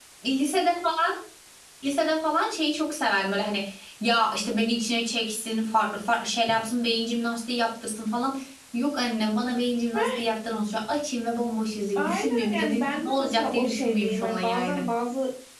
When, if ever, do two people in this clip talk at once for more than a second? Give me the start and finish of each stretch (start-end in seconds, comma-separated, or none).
12.0-14.8